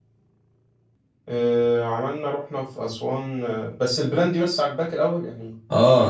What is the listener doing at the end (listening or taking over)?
taking over